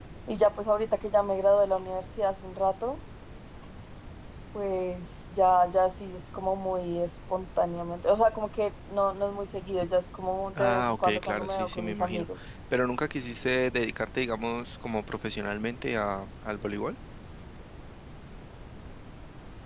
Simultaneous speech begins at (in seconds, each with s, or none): 10.6 s